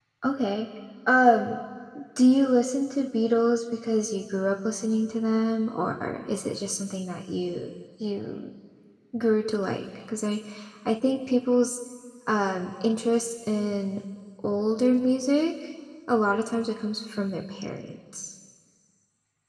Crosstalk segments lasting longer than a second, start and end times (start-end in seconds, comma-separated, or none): none